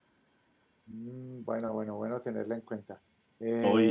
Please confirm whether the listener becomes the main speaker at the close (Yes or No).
Yes